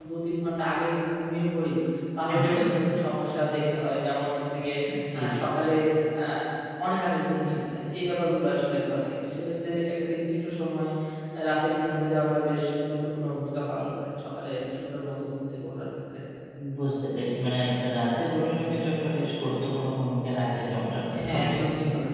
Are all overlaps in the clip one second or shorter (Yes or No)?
Yes